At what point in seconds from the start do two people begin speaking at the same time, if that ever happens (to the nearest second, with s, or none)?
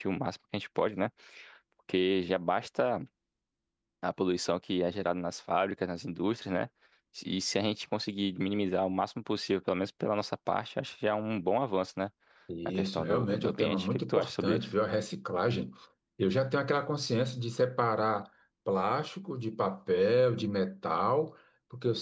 13 s